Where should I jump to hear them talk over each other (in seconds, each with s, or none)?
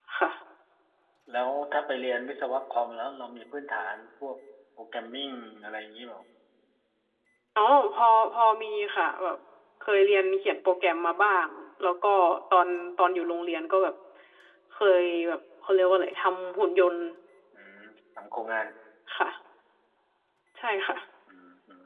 none